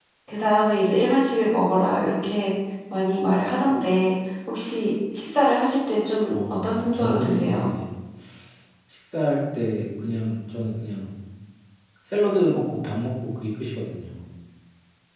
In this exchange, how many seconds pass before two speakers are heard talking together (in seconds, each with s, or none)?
6.3 s